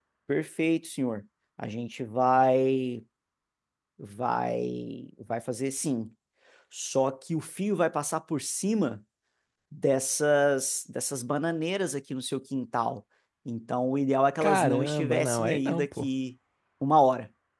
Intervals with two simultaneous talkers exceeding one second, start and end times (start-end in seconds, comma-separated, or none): 14.4-16.1